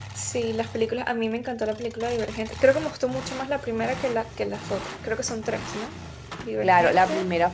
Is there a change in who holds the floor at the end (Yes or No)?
Yes